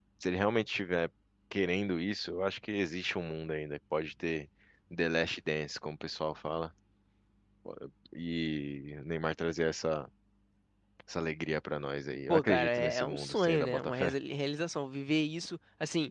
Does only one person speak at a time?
No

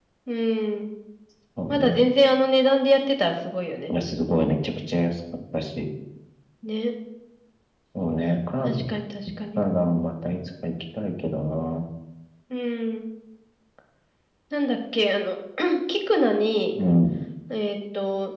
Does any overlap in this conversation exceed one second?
No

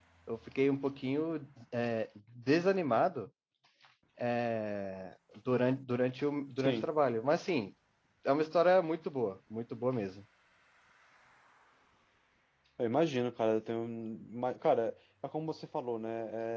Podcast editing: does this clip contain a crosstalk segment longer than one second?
No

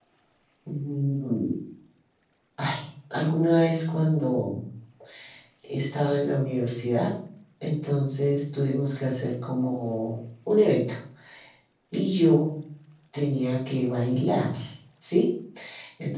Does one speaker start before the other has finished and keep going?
No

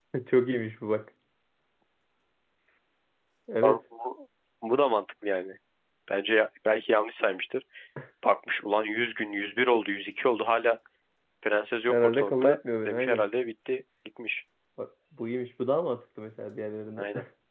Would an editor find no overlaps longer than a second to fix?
No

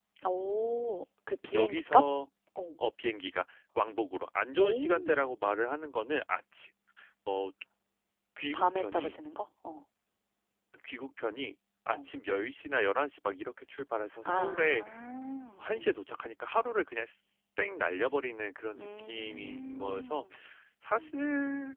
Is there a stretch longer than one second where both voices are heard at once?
Yes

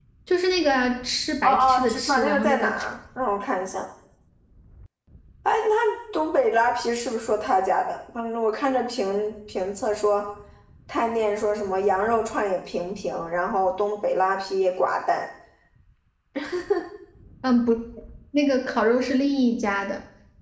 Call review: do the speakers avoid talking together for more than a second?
No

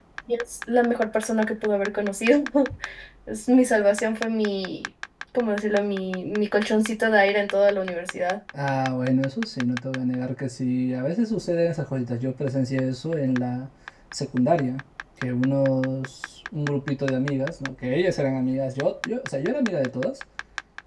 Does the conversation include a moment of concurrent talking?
No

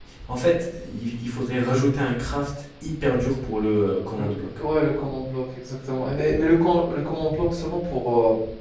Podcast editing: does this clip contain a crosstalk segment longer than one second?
No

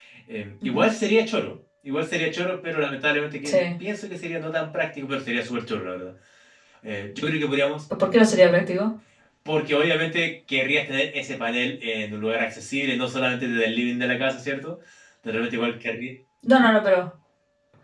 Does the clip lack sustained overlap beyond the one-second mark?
Yes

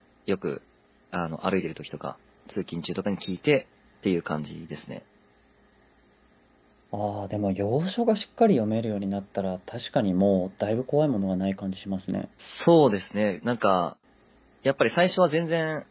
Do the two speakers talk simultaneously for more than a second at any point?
No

